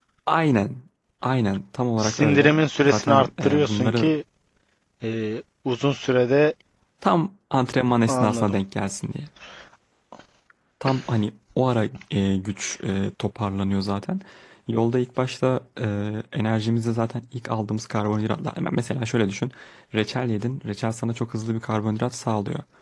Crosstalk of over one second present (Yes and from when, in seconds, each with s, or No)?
Yes, from 2.0 s